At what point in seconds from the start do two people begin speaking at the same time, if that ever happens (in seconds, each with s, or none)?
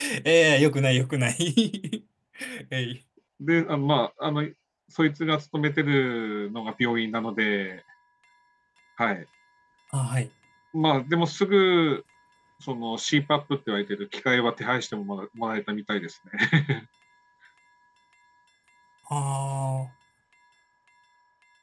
none